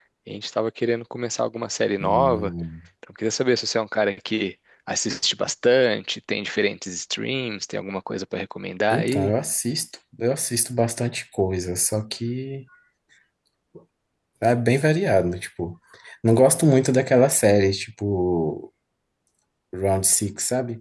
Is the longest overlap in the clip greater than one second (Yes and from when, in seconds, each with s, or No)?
No